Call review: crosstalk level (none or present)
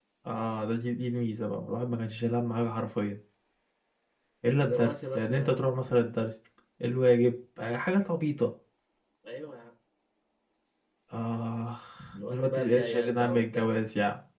present